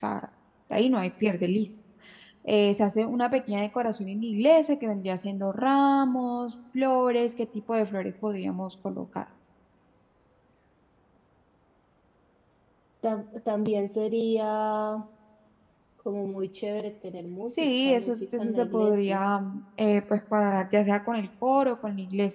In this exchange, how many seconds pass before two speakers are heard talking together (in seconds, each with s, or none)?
17.6 s